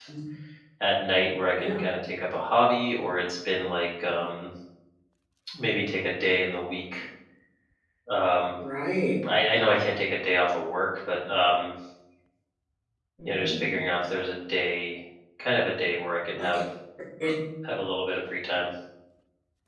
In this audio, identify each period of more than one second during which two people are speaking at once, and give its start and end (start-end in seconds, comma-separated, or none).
none